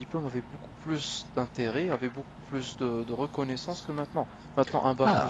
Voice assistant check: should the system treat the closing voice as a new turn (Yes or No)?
Yes